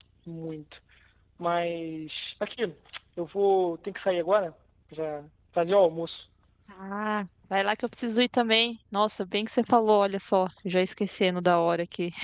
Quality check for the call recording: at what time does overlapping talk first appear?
none

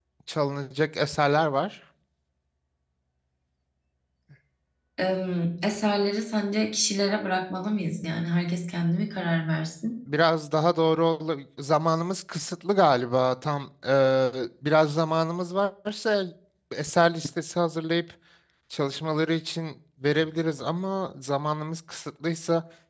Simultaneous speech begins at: none

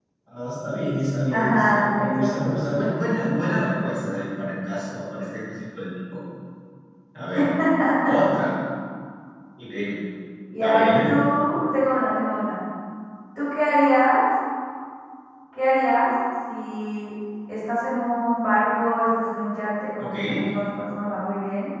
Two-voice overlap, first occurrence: 1.3 s

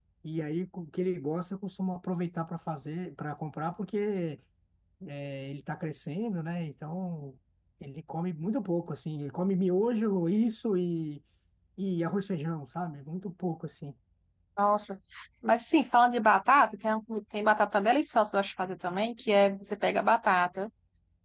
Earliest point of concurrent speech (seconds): none

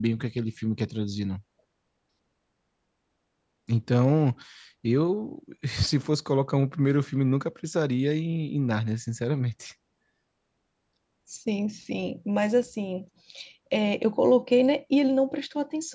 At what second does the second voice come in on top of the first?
none

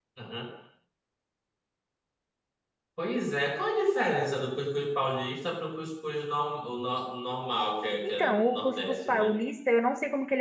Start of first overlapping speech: 8.0 s

